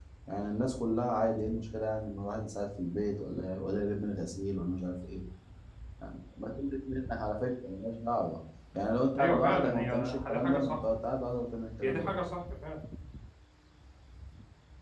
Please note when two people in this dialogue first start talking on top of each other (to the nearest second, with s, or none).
9 s